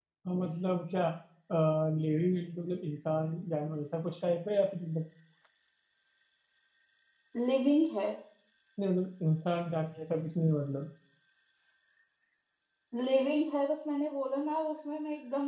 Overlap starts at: none

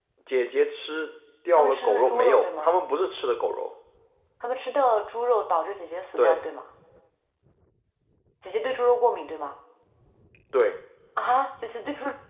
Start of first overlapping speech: 1.5 s

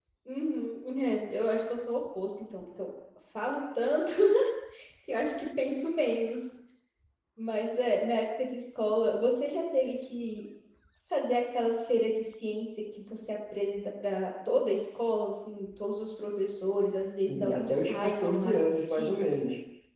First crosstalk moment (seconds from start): 17.3 s

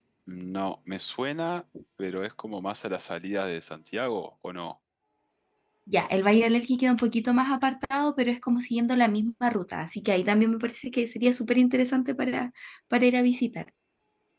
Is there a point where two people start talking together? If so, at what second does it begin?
none

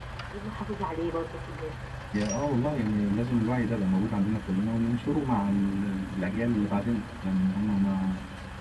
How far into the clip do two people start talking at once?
none

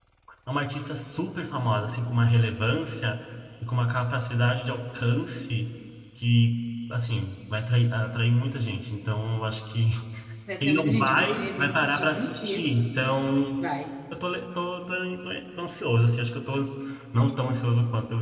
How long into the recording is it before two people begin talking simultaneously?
10.6 s

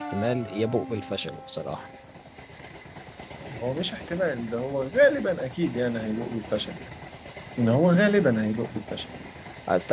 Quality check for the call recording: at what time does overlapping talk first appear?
none

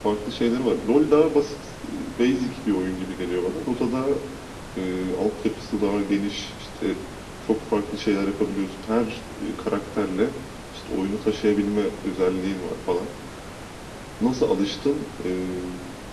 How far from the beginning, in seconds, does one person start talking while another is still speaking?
none

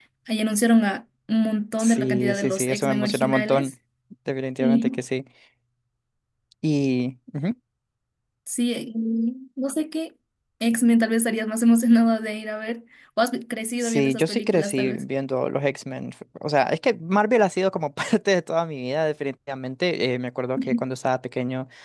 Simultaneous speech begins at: 1.8 s

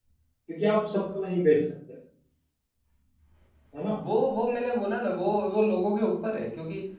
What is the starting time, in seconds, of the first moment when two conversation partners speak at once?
none

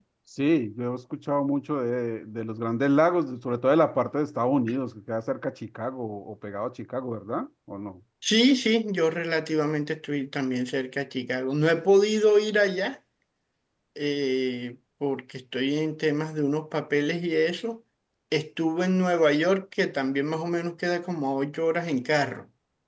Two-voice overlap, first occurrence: none

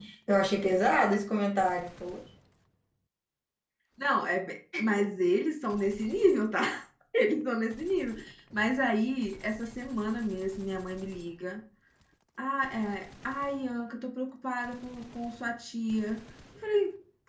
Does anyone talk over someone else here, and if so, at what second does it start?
none

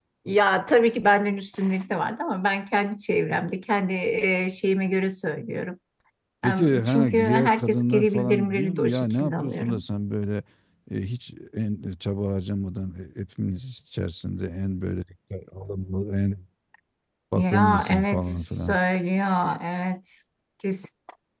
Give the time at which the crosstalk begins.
6.4 s

